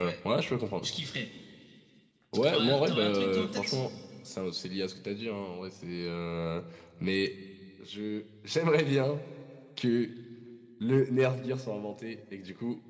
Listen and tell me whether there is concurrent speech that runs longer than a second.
Yes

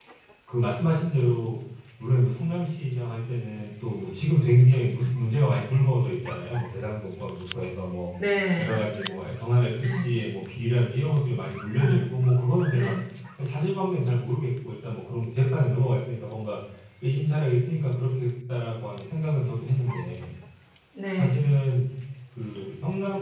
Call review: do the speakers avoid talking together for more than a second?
Yes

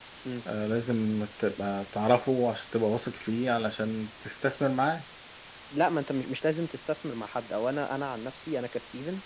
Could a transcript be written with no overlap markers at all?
Yes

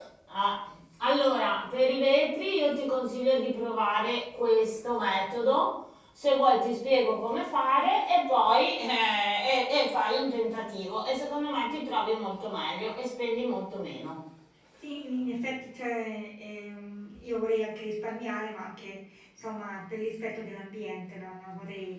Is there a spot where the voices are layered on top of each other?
No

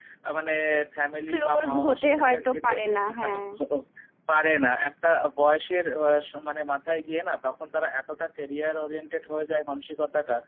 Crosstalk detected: Yes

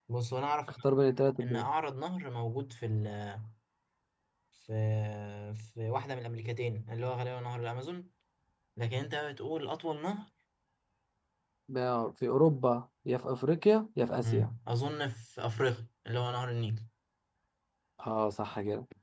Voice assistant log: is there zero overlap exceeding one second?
Yes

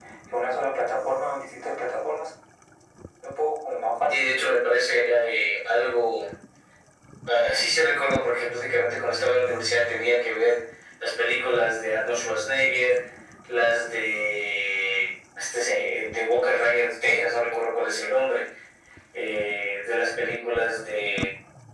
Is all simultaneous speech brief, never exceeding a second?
Yes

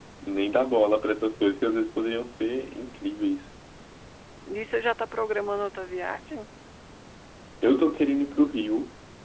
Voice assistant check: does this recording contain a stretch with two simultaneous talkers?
No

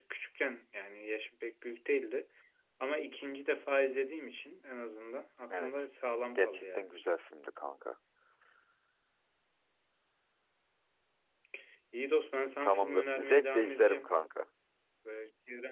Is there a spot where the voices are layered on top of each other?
Yes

